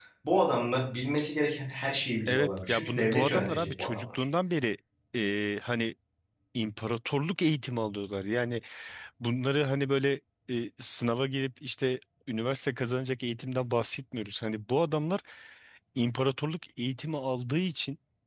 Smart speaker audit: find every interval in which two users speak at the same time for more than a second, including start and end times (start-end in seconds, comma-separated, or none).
2.3-4.2